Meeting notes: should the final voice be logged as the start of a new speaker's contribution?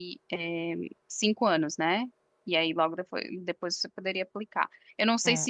Yes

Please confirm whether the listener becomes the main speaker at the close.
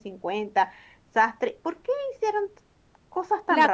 Yes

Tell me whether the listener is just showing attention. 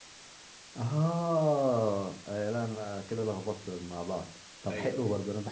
Yes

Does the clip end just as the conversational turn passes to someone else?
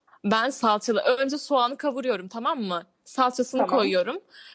No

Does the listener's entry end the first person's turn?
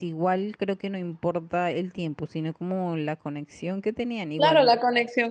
Yes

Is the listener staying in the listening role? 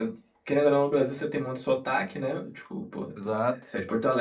Yes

